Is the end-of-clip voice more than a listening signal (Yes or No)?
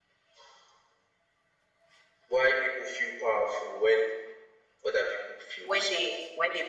Yes